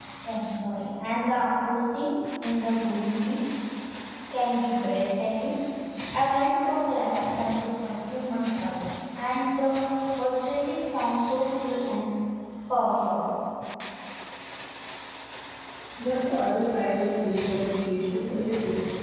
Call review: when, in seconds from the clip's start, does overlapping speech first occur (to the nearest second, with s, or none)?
none